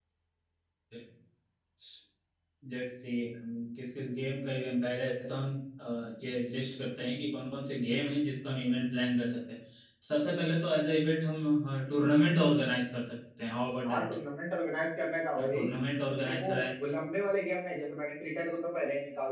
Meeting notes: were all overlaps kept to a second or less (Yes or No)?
Yes